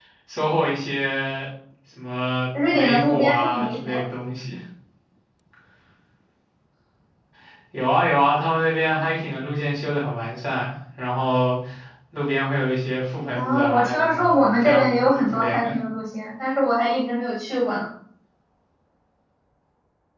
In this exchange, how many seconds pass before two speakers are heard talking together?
3 s

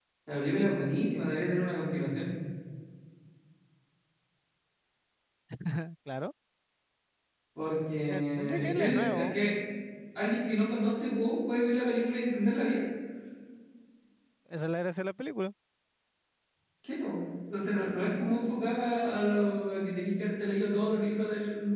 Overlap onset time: 8 s

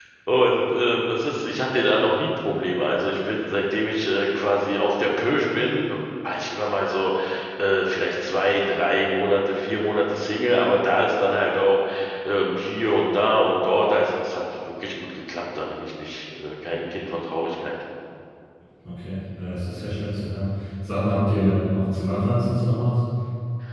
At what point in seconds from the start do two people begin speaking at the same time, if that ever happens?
none

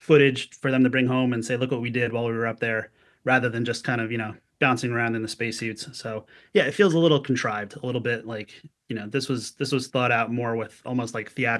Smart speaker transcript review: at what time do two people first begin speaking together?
none

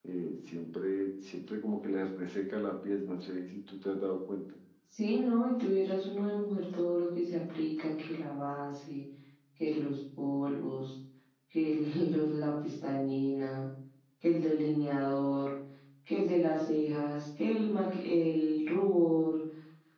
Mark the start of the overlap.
none

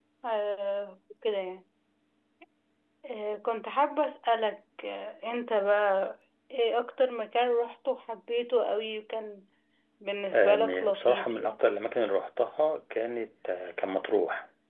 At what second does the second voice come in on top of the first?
10 s

